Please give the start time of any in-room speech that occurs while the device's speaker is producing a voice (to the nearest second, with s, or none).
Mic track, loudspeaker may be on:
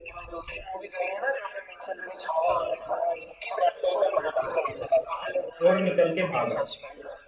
6 s